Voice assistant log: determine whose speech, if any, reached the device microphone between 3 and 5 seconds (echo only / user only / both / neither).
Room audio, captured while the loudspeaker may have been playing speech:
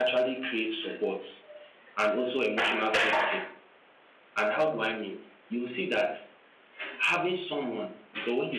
user only